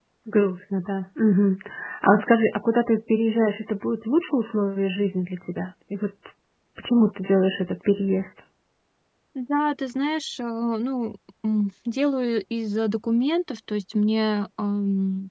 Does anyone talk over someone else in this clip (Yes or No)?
No